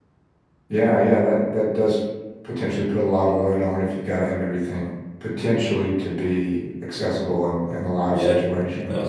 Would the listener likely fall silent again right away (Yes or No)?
No